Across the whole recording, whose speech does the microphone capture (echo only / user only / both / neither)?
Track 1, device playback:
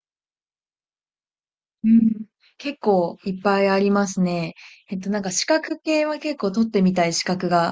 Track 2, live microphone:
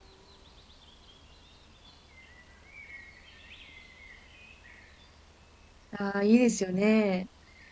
user only